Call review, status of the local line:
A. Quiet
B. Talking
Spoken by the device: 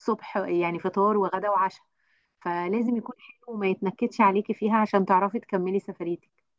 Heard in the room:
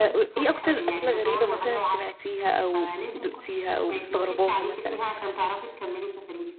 B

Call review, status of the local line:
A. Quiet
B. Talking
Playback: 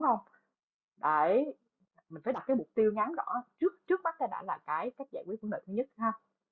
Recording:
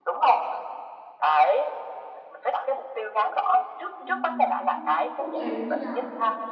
B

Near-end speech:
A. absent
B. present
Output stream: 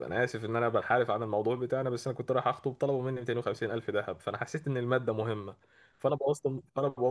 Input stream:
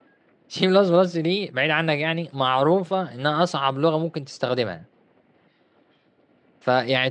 B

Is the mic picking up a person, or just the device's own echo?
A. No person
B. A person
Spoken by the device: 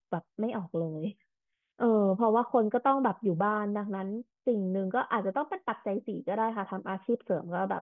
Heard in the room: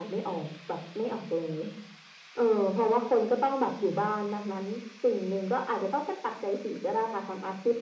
A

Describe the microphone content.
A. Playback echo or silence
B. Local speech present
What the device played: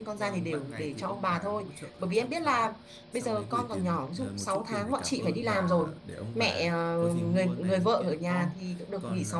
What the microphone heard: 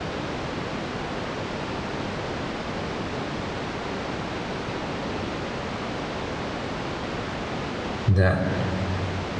B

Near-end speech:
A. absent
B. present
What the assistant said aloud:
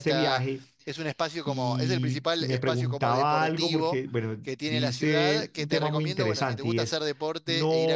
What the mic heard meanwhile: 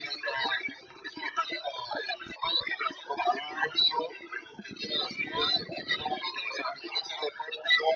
A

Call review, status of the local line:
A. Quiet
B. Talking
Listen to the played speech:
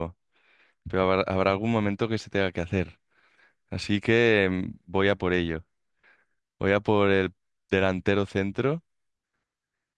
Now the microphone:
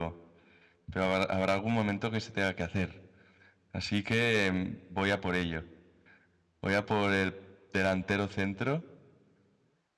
A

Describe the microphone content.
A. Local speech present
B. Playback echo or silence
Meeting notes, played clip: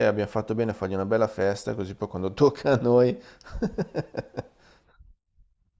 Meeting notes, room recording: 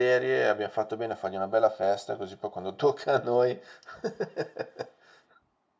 B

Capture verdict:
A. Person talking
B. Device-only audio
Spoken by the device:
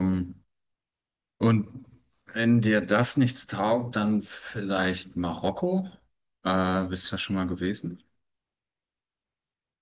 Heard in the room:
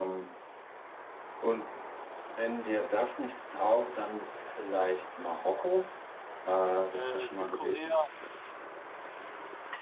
A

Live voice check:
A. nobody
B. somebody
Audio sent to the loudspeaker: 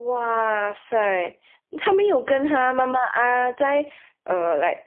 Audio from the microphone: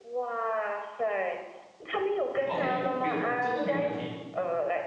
B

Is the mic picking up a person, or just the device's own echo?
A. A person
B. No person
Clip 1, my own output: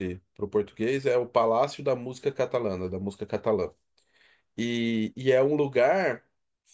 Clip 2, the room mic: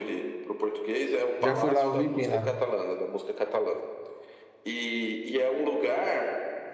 A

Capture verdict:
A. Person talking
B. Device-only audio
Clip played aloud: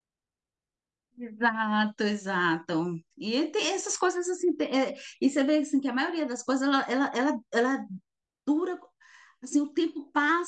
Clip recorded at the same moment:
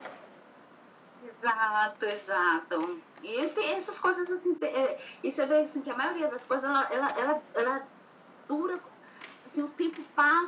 B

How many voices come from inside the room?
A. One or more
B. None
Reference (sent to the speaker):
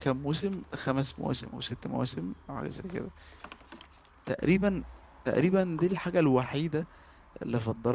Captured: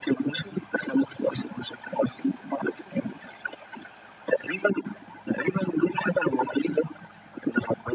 B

